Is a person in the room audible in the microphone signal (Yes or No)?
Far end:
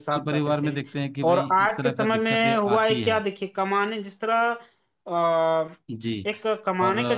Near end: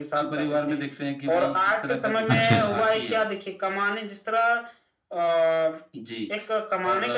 Yes